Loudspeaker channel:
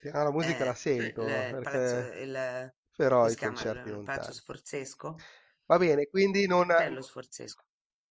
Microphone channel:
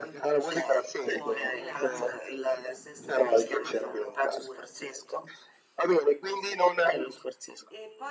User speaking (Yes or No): Yes